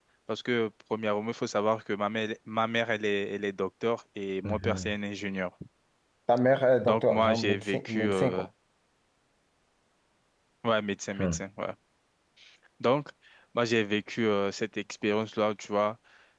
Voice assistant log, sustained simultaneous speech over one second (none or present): present